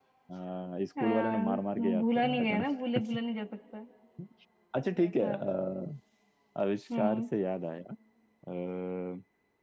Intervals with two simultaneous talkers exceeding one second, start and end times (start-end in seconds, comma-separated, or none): 1.0-2.6